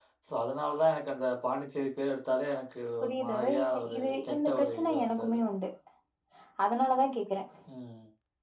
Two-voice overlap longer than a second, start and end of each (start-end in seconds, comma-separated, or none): 3.0-5.4